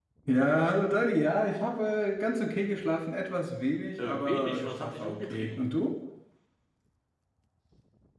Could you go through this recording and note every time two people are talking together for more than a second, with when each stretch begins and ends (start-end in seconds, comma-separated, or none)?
4.0-5.6